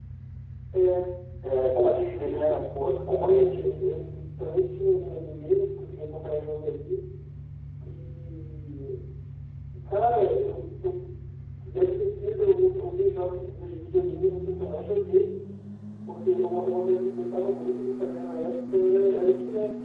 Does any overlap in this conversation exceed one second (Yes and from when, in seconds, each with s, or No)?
Yes, from 1.6 s